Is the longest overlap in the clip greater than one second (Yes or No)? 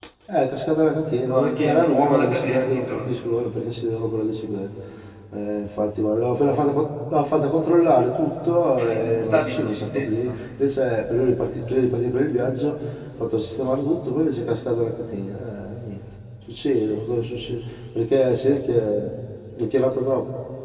Yes